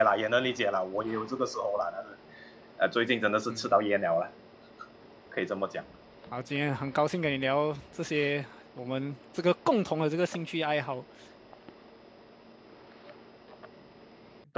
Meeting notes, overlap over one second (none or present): none